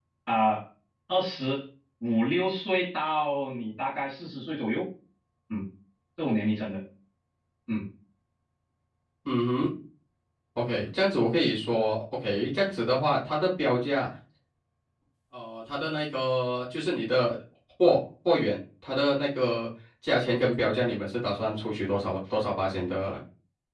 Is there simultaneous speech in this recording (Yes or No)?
No